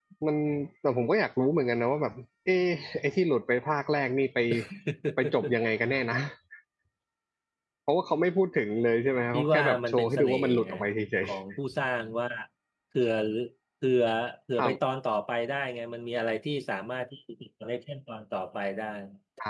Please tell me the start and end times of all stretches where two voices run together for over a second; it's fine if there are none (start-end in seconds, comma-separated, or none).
9.3-10.7